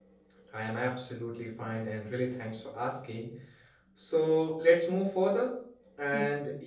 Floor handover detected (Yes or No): No